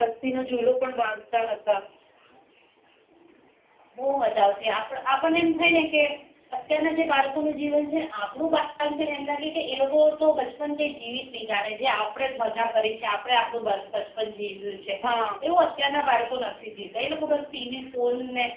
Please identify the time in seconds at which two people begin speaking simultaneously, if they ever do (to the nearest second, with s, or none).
none